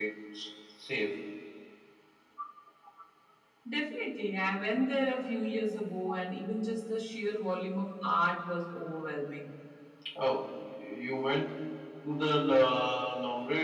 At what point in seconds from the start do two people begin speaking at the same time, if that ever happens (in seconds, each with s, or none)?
none